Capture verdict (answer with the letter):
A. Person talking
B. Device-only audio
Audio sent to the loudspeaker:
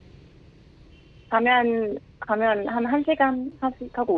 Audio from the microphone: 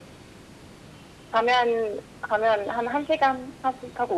B